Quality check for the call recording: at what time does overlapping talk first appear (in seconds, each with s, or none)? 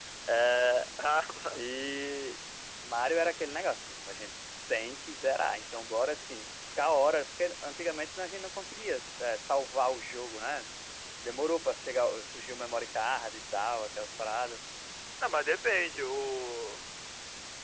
none